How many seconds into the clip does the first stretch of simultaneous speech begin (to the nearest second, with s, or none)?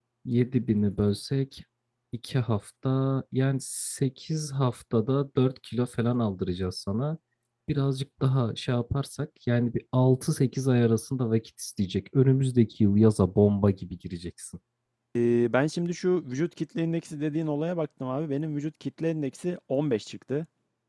none